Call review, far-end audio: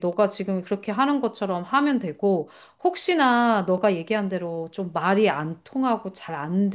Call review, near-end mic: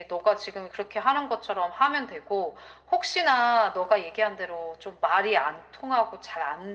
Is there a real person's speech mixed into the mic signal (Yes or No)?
No